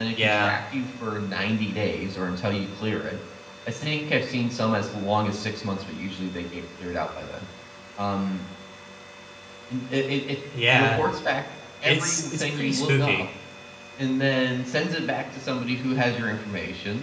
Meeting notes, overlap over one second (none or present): present